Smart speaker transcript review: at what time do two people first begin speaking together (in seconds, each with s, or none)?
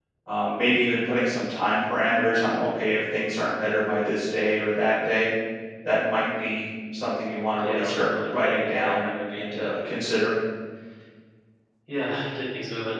7.6 s